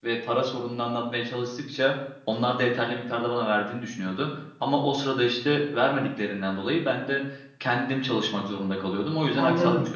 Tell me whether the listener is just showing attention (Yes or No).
No